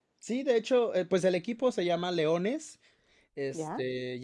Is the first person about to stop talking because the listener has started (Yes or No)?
No